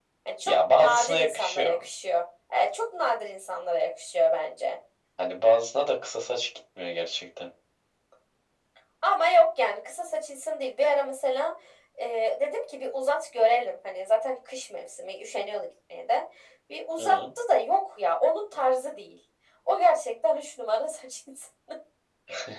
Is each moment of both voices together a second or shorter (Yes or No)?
No